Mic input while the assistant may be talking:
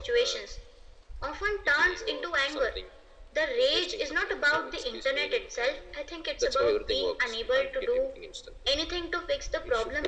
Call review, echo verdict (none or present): present